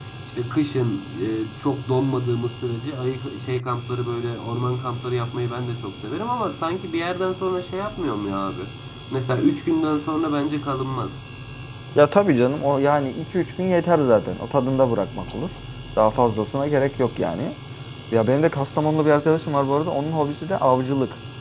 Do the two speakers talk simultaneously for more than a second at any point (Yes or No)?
No